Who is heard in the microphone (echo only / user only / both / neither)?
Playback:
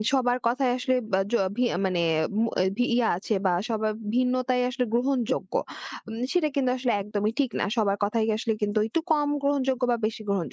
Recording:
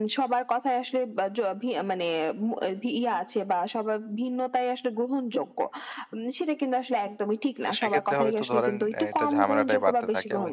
both